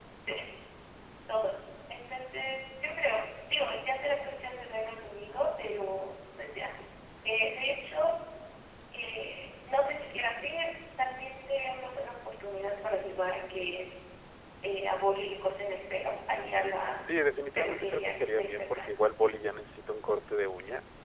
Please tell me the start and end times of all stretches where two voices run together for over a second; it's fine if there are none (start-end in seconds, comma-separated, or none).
17.6-18.9